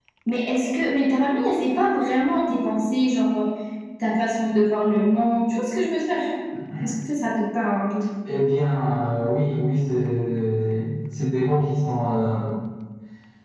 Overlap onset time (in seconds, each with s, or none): none